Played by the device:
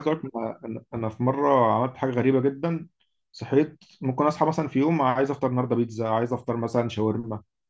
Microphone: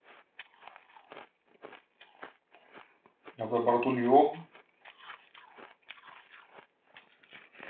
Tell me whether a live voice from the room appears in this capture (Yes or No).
Yes